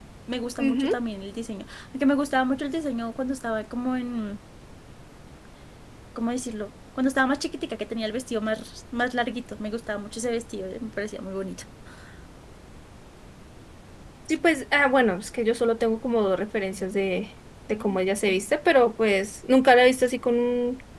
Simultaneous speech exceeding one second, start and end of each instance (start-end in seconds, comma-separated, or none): none